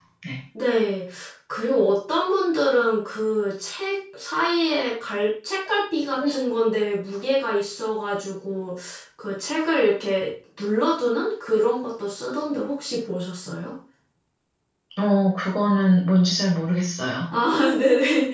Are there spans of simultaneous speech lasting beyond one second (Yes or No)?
No